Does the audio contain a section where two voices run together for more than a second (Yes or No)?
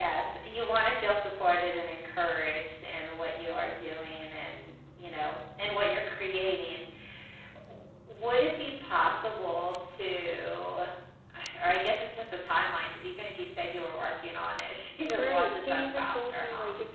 Yes